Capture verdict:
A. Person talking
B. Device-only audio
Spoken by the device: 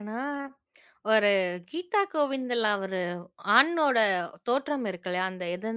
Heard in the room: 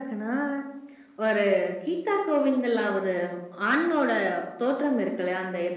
B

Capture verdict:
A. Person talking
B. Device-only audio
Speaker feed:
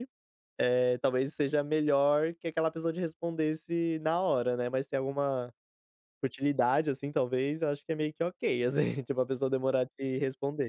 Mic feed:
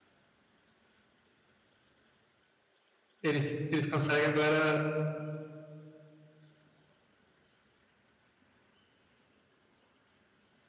A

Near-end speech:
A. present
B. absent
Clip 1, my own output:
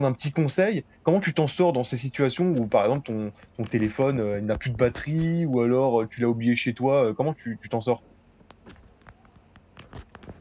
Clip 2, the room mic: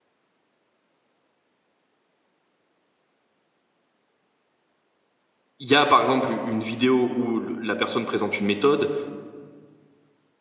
A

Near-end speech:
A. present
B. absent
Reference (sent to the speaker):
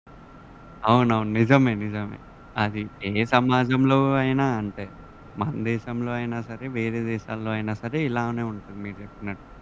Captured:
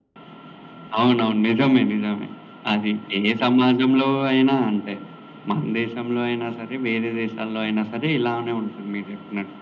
B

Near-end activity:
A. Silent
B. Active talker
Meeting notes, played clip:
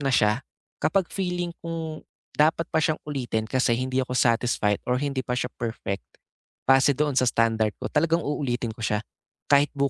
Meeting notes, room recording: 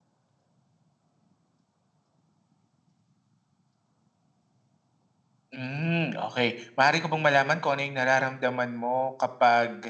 B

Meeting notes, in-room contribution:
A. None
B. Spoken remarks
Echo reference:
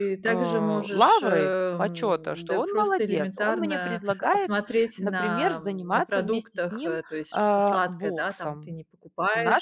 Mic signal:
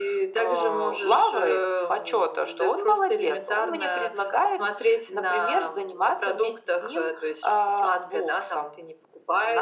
A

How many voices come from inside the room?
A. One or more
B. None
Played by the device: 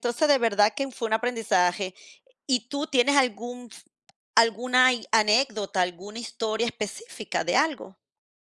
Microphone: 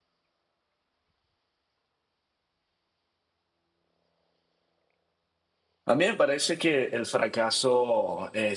A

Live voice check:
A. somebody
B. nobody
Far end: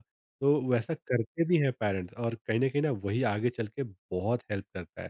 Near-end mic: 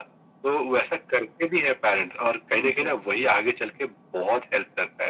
A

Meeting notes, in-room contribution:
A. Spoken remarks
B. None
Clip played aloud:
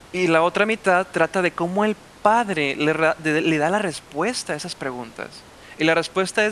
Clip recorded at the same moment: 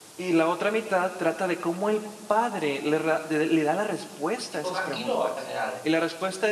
A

